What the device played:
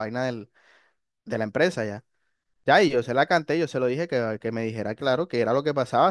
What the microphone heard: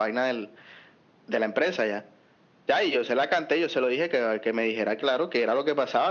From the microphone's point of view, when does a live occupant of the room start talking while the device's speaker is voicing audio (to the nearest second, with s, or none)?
none